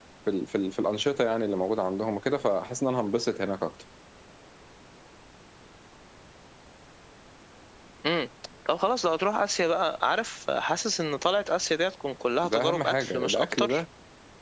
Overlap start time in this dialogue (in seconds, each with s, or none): 12.4 s